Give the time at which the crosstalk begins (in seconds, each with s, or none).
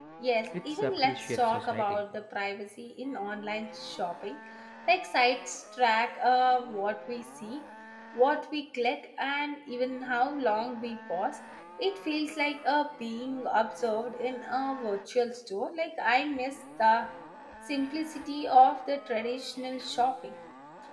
0.7 s